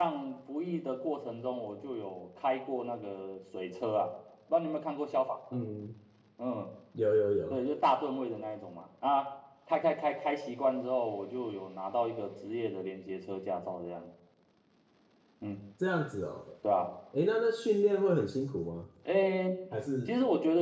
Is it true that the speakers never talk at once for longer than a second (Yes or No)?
Yes